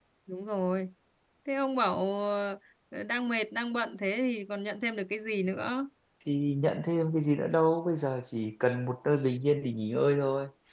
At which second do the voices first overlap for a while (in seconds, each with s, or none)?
none